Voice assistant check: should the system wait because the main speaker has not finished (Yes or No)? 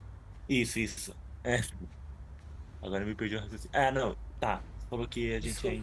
Yes